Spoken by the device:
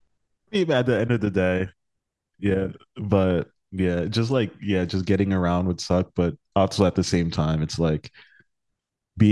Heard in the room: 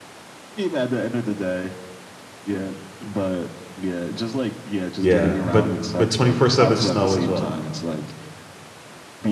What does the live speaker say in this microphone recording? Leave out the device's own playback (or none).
Yeah, but but 24/7 snow as well.